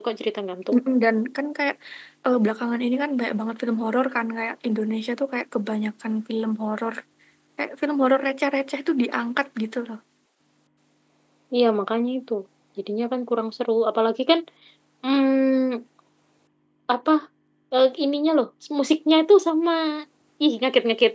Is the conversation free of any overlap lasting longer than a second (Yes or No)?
Yes